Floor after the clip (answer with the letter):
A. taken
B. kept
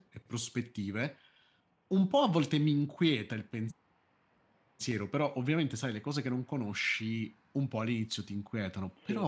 B